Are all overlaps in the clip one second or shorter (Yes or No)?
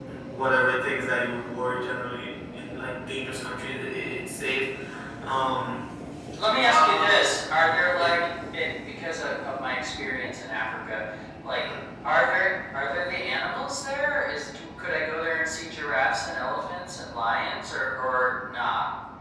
Yes